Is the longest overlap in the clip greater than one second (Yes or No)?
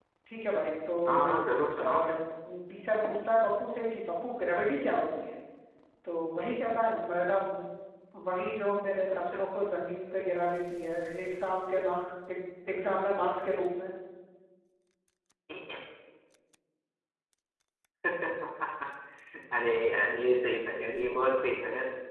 No